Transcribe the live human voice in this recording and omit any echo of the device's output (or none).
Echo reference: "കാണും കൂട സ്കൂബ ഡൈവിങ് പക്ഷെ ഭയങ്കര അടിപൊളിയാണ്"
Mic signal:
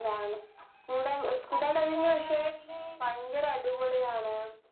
ന്ന് ഫ്ലൈറ്റ് കേറാണെങ്കില്